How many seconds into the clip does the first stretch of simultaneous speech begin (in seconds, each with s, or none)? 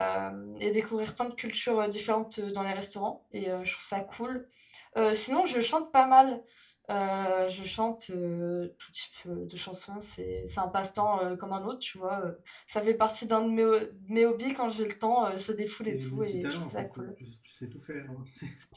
15.9 s